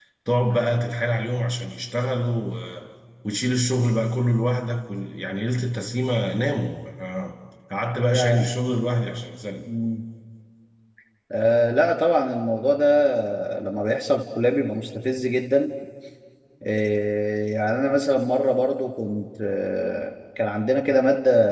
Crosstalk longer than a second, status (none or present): none